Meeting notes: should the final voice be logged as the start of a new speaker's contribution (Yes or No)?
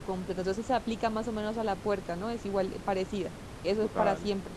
Yes